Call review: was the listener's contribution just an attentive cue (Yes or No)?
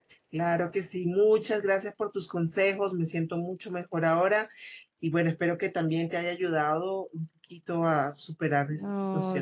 No